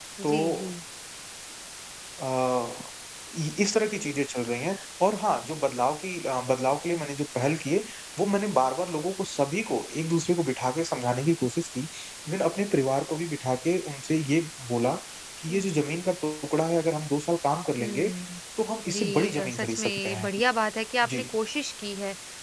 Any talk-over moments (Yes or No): Yes